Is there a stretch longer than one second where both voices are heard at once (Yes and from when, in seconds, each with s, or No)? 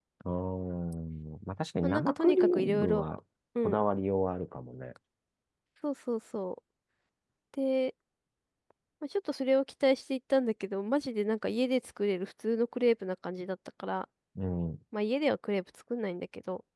Yes, from 1.8 s